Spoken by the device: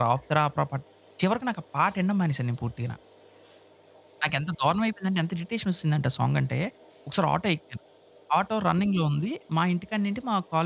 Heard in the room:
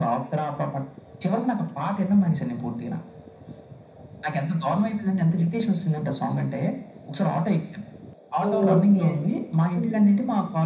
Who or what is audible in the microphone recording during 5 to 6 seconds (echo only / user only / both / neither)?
echo only